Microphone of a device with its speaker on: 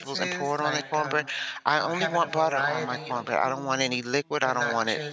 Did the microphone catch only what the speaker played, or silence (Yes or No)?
No